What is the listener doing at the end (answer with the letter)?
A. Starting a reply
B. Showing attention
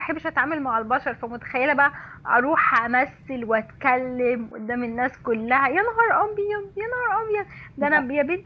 B